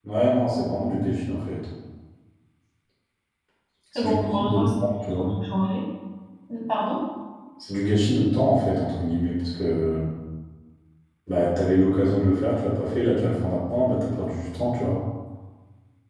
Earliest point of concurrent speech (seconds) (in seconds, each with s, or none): 4.0 s